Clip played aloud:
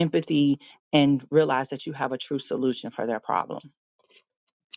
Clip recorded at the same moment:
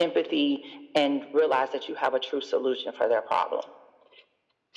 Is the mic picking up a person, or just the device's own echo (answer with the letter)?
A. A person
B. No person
B